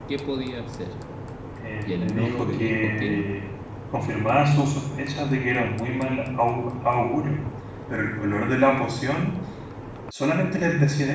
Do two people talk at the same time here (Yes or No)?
Yes